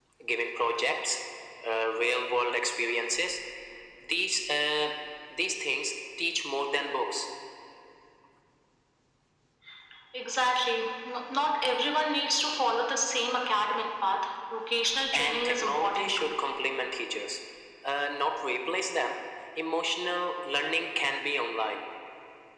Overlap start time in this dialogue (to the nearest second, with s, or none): 15 s